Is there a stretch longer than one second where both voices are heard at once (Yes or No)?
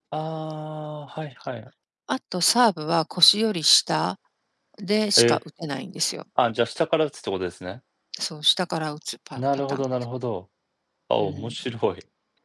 No